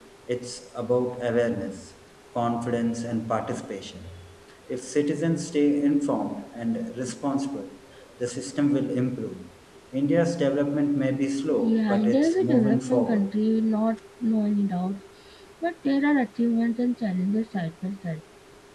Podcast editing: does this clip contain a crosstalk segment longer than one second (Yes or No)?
Yes